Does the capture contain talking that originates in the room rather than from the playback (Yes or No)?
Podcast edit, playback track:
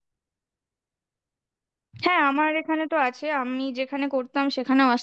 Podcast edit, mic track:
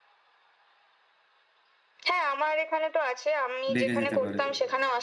Yes